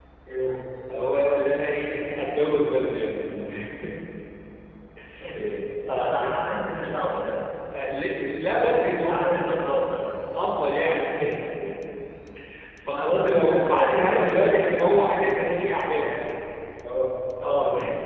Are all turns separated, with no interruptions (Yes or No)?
No